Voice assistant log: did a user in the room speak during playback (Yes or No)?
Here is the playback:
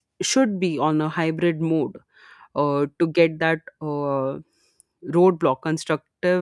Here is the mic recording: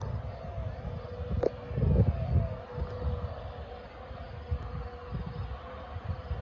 No